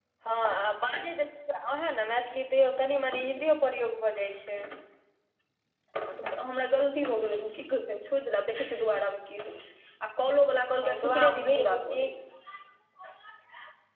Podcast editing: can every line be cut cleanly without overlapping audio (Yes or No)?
No